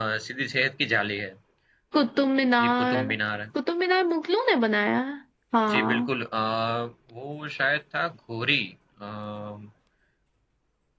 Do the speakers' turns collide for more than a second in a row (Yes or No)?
No